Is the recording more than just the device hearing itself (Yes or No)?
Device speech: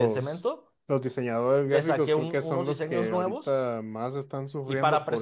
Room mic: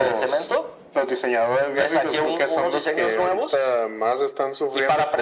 No